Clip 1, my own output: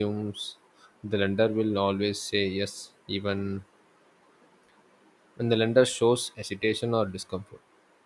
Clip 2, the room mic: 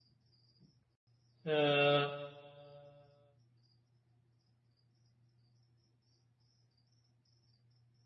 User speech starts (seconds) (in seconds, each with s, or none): 1.4 s